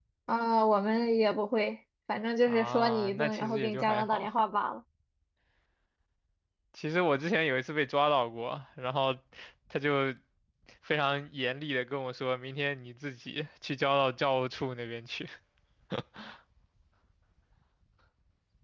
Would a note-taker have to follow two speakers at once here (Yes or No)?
Yes